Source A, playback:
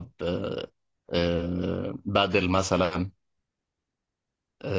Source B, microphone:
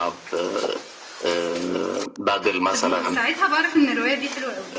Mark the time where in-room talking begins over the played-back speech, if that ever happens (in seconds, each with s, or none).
2.7 s